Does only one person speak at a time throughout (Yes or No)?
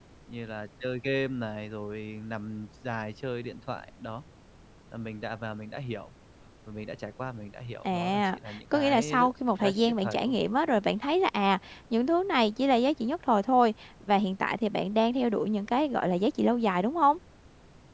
No